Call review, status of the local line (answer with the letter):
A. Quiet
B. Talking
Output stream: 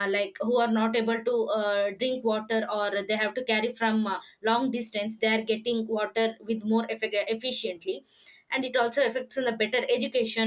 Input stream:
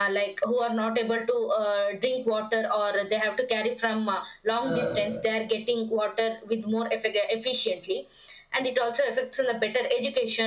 B